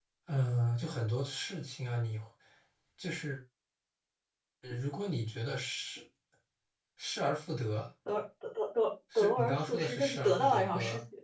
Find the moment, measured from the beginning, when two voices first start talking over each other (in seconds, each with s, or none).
9.1 s